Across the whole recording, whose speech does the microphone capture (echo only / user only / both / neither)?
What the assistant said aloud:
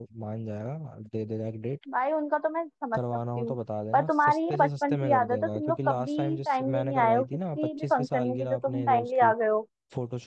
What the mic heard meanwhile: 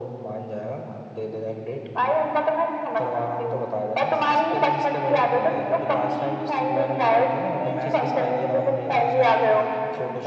both